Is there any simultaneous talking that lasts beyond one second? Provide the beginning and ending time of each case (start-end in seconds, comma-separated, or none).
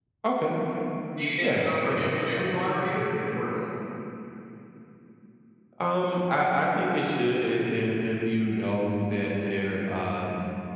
1.4-3.1